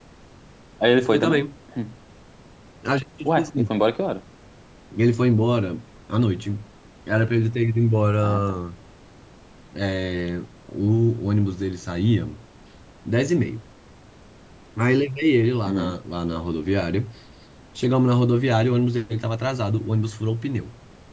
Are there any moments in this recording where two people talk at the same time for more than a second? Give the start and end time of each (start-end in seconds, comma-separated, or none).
none